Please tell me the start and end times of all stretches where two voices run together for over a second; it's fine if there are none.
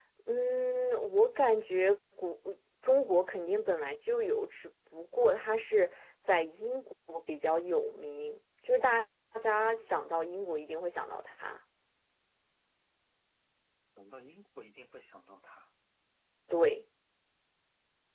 none

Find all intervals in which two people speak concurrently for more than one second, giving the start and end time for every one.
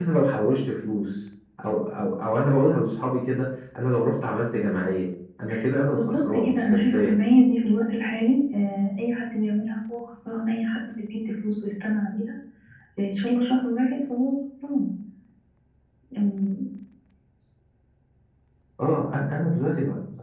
5.9-7.2

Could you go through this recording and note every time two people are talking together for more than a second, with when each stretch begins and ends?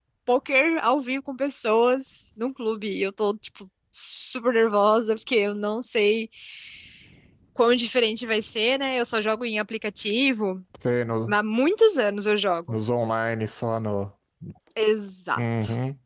none

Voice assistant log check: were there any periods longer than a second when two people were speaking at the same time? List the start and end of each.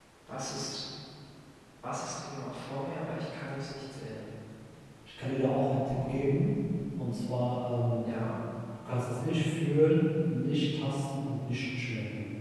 none

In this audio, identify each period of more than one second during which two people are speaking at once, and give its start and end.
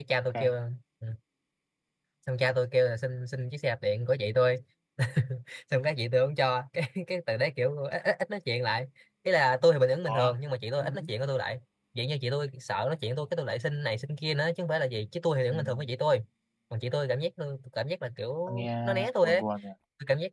none

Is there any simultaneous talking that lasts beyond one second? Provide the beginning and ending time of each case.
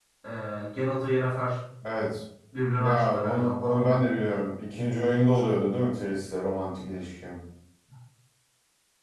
2.8-4.0

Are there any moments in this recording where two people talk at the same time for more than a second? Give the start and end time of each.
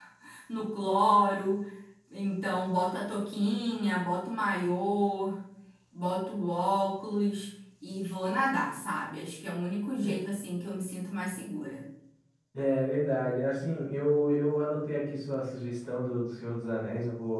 none

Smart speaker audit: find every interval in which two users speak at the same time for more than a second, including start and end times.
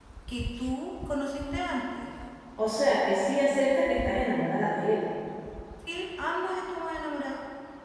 none

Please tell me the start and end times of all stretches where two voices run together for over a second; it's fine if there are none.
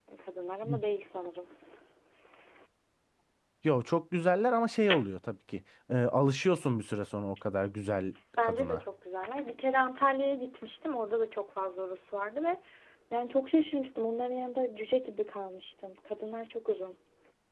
none

